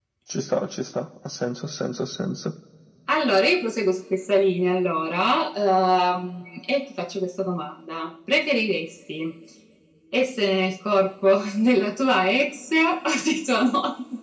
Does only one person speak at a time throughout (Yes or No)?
Yes